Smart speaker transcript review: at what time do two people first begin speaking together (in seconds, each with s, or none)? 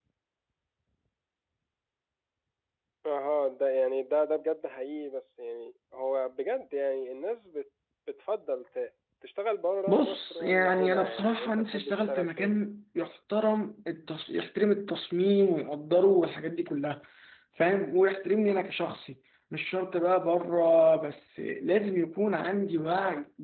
9.9 s